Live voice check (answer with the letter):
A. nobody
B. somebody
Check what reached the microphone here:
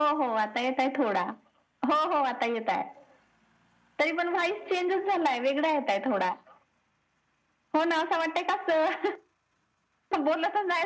A